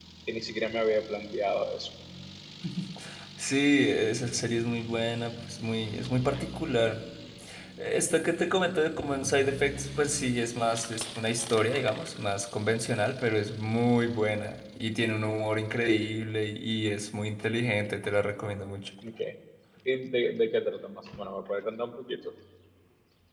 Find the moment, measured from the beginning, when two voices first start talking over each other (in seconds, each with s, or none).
none